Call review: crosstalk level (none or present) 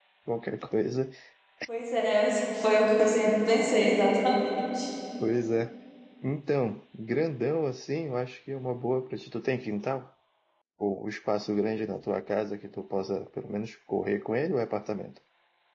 none